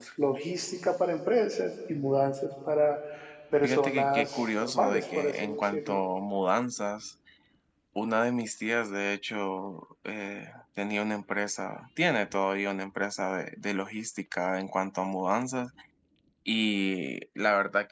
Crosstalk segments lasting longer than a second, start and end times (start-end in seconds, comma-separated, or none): 3.6-6.0